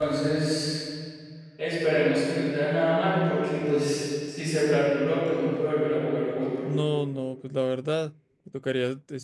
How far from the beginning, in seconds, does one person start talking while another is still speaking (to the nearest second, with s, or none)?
none